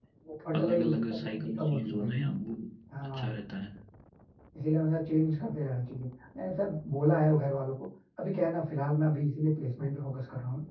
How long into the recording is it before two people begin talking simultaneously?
0.6 s

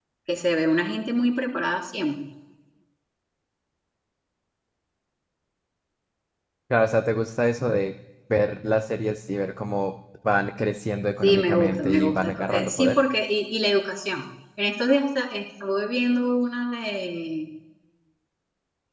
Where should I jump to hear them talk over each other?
11.2 s

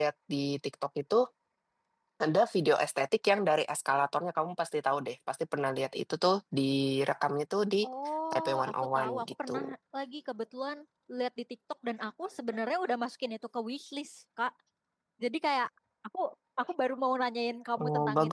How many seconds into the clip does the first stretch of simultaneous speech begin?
8.3 s

